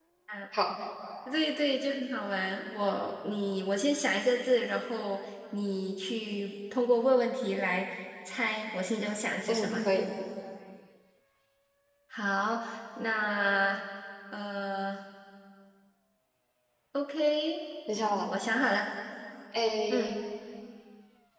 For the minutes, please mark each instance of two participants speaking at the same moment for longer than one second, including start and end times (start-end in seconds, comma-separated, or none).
none